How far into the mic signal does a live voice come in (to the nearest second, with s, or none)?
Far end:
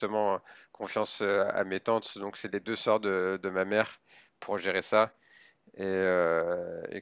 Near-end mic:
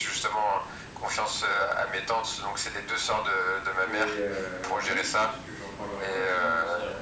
4 s